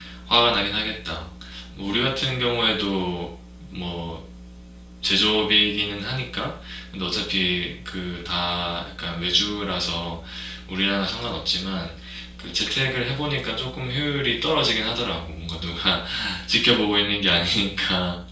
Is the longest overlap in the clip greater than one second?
No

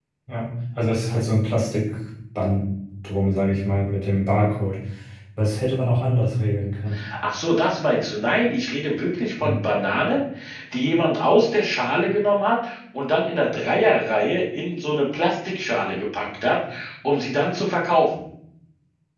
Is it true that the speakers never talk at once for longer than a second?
Yes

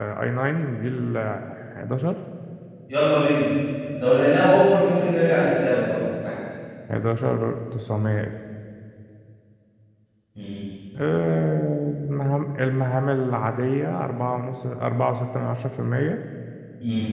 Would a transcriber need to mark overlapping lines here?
No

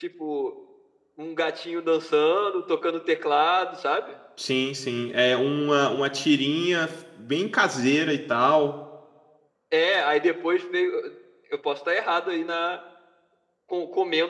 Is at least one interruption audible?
No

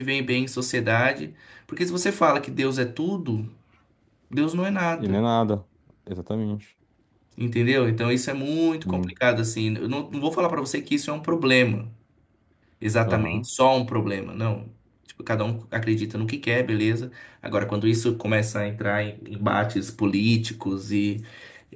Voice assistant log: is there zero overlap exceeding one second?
Yes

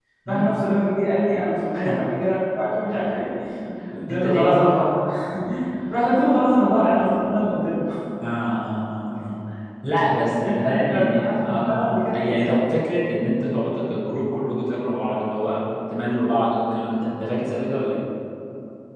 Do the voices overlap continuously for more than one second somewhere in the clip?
Yes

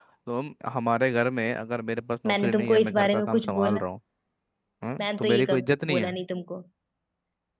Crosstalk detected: Yes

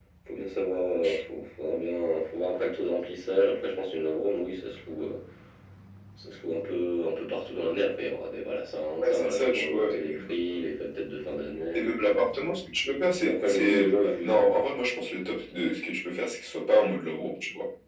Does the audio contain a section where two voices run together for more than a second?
Yes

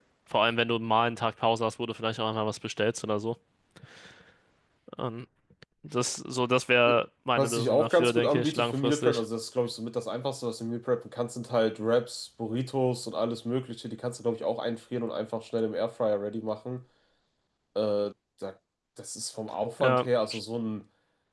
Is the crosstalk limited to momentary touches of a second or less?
No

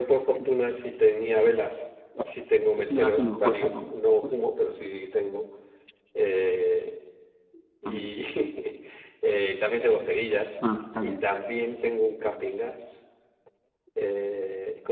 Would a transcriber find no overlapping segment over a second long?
No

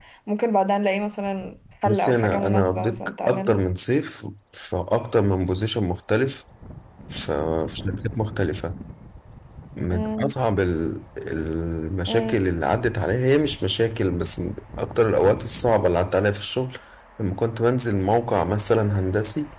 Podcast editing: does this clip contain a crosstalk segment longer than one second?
Yes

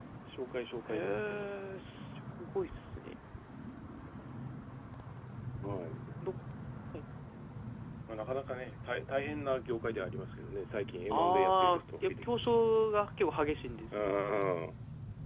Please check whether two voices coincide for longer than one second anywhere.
Yes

